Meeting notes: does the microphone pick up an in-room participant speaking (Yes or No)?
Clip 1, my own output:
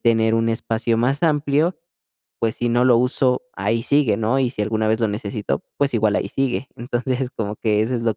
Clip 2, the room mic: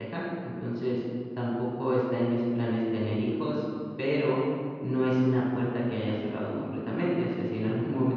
Yes